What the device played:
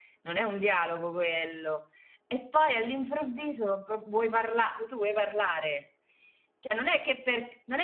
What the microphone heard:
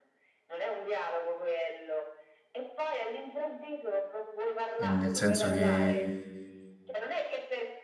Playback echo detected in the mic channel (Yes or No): Yes